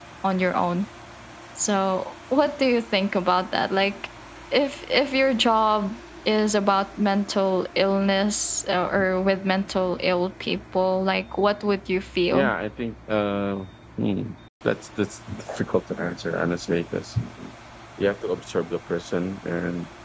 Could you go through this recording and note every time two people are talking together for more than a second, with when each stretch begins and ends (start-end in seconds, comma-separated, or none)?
none